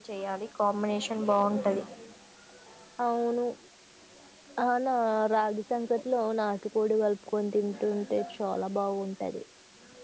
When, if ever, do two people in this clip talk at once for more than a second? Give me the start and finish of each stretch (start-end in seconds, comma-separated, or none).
none